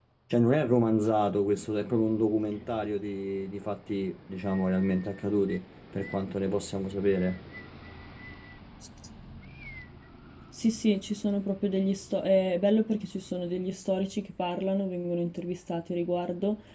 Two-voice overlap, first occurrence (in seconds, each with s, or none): none